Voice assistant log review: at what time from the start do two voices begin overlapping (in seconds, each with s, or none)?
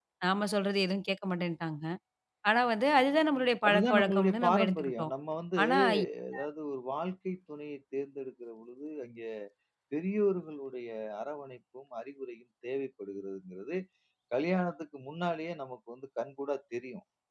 3.7 s